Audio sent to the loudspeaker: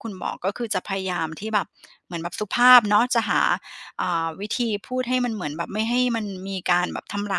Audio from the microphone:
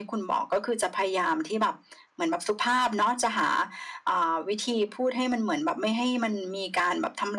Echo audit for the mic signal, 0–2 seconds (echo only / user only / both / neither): echo only